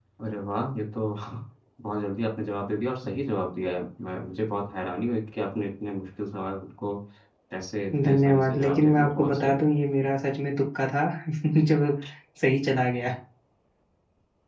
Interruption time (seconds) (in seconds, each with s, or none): 8.0 s